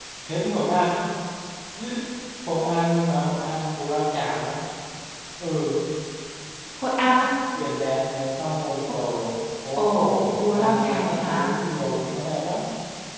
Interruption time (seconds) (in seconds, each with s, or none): 9.7 s